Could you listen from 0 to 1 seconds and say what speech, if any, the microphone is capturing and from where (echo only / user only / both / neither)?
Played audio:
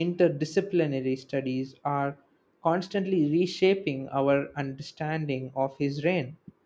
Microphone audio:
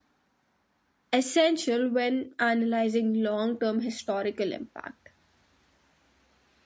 neither